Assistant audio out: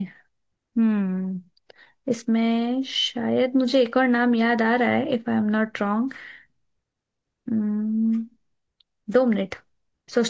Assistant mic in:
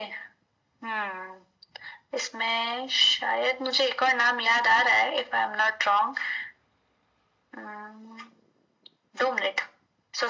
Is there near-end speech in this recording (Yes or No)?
No